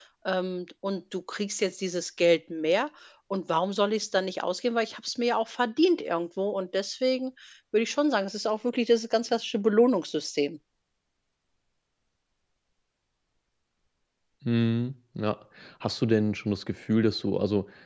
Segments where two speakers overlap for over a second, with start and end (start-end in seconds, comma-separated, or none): none